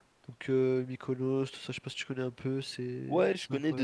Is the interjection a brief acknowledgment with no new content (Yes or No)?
No